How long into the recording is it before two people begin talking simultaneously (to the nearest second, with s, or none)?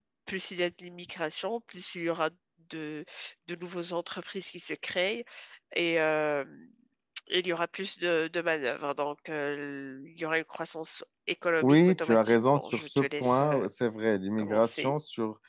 12 s